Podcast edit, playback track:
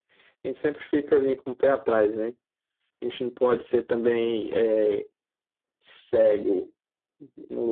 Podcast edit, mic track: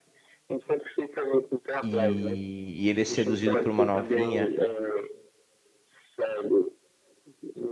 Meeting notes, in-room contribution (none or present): present